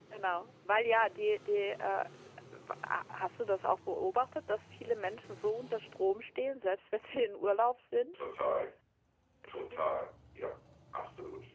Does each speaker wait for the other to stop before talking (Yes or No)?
Yes